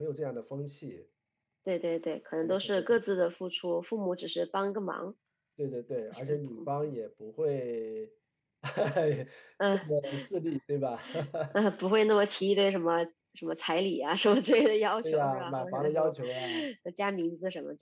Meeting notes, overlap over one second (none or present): present